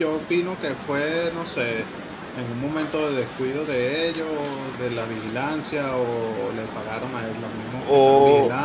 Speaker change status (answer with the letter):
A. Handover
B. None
A